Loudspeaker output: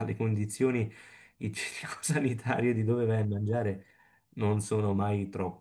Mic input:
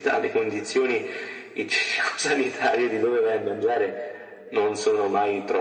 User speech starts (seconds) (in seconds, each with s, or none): none